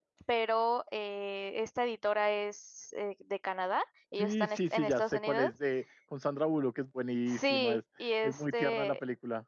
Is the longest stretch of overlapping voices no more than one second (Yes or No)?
No